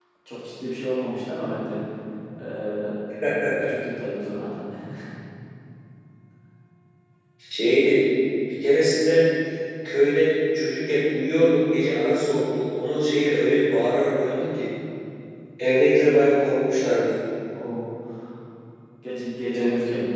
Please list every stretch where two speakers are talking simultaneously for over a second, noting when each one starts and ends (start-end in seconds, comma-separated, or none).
none